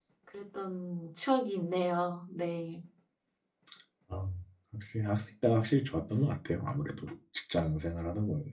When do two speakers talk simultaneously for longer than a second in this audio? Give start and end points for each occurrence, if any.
none

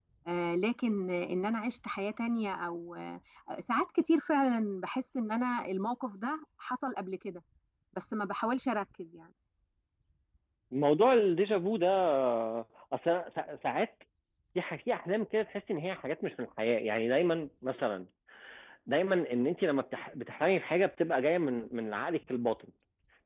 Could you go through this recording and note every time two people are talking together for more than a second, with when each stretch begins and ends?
none

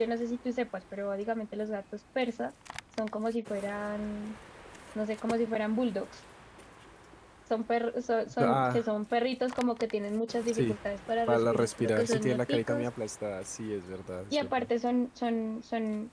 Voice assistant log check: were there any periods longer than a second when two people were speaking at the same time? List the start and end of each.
11.3-12.9

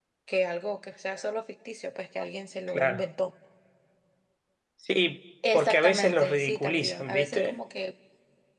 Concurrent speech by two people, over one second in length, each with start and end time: 5.5-7.6

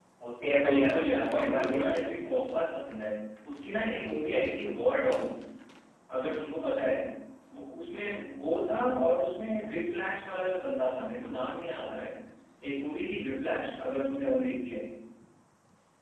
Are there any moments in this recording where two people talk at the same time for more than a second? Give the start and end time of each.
0.6-2.3

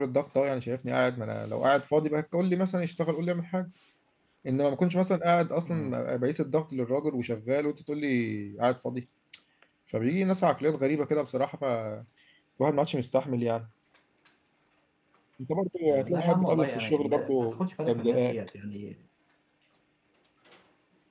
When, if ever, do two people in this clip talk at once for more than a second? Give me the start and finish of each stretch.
15.9-18.4

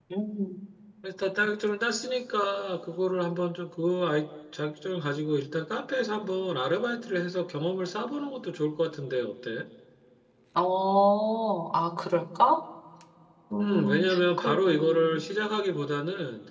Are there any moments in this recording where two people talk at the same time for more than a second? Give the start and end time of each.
13.6-15.2

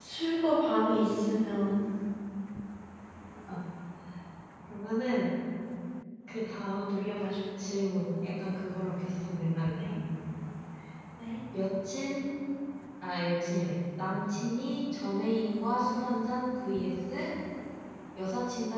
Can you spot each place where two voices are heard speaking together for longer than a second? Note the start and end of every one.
none

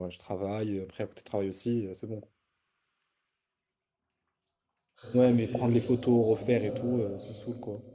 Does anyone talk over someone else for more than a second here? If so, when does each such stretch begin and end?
5.1-7.2

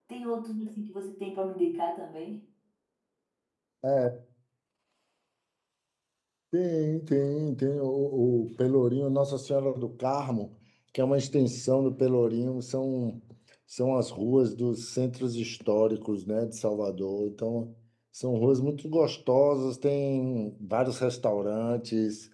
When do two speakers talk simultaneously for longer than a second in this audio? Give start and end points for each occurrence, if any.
none

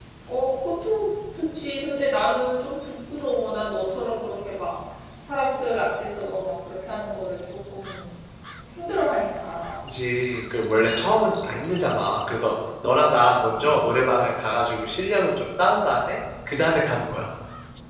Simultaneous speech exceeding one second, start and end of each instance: none

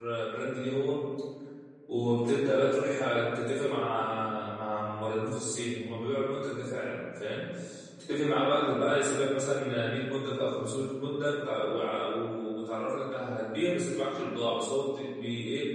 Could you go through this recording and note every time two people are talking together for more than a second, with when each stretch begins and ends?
none

